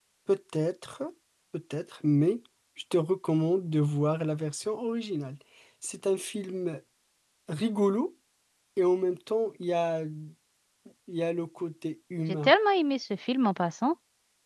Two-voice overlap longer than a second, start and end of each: none

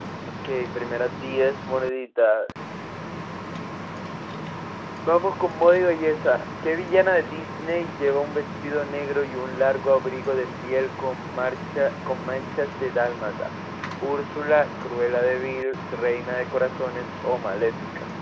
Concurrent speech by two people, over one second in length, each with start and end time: none

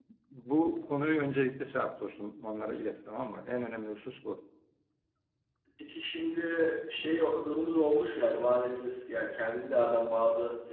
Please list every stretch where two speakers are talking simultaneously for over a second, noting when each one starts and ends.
none

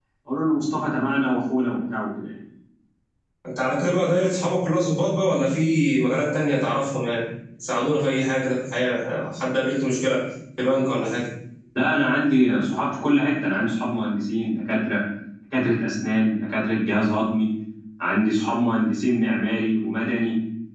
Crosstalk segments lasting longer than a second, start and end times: none

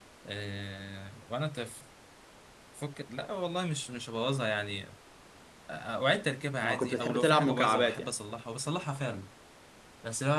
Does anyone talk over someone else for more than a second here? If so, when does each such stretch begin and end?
6.6-8.1

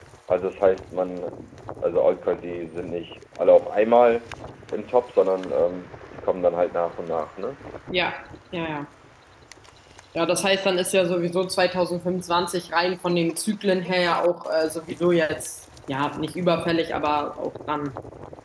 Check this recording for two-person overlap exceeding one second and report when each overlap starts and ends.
none

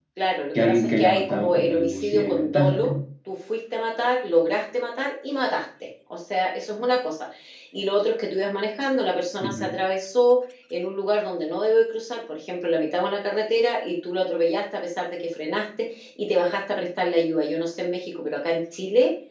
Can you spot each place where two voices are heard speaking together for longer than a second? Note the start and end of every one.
0.5-3.0

